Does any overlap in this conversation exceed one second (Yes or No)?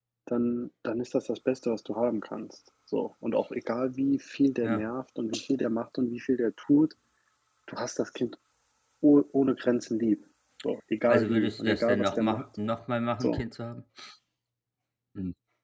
Yes